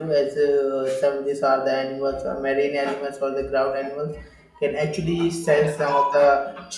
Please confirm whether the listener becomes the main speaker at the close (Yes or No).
No